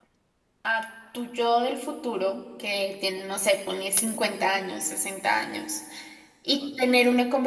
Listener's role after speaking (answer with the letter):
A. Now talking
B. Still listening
B